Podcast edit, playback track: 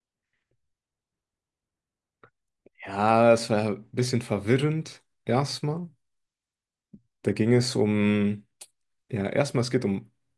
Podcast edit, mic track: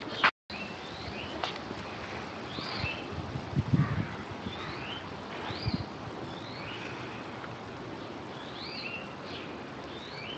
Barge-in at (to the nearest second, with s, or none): none